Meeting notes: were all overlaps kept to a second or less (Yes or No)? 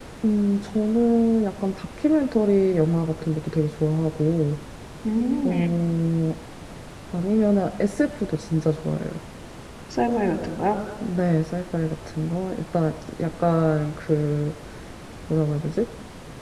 Yes